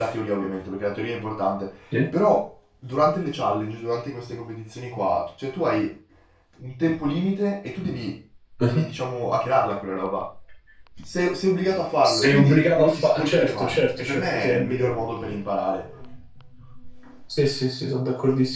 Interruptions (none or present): present